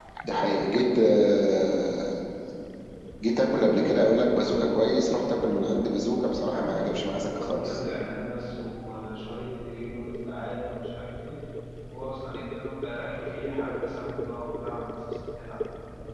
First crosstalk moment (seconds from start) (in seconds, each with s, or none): 6.5 s